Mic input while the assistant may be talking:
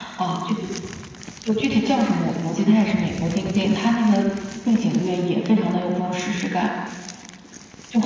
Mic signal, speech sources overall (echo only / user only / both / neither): echo only